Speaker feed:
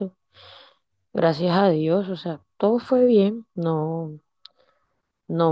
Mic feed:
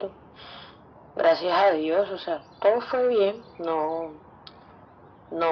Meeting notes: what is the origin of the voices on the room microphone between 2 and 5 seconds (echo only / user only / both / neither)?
echo only